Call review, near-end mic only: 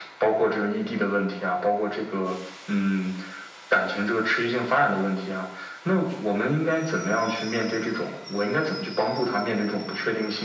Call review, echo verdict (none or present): present